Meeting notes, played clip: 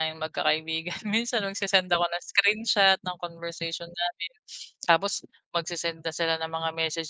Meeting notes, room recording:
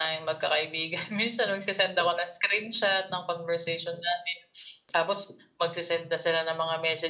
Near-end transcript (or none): none